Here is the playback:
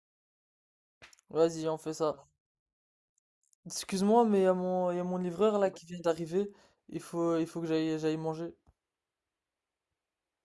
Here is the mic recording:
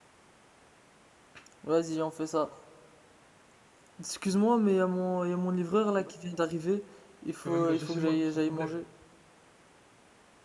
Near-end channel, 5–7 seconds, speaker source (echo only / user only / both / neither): echo only